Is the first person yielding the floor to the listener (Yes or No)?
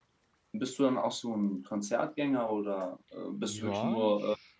Yes